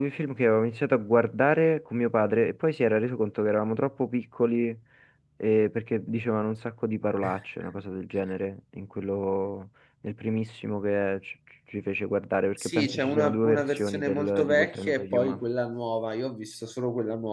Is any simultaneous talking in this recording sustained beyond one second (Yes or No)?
Yes